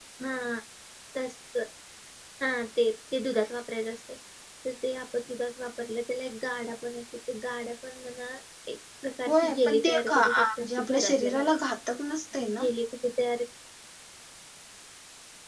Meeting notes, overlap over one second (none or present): present